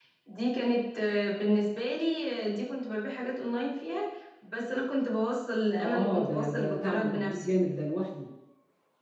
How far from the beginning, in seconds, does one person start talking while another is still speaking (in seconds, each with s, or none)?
5.8 s